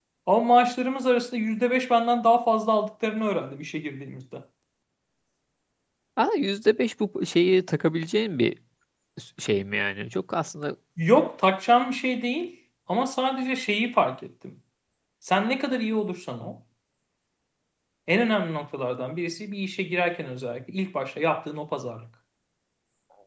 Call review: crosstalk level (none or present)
none